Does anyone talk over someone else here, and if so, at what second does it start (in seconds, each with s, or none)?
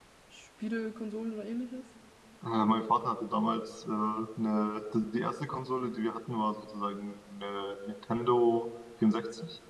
none